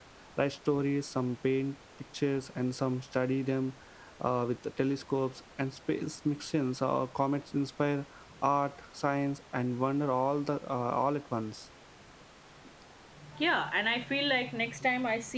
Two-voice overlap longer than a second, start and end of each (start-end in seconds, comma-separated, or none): none